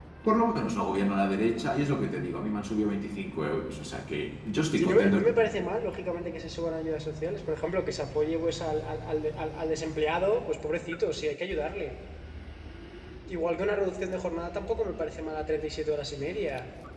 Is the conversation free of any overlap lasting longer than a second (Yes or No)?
Yes